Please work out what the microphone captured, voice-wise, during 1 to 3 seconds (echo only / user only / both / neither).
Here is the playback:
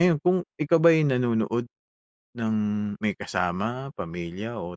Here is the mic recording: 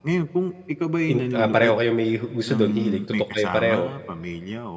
both